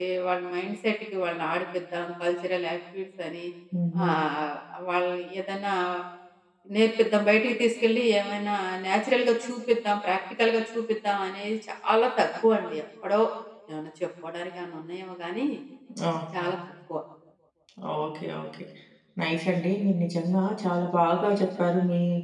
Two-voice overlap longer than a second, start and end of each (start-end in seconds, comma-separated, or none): none